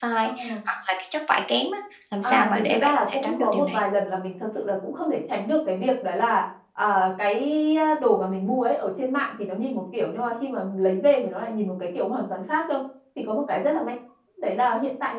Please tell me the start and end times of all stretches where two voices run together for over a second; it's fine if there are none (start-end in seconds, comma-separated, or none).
2.2-3.8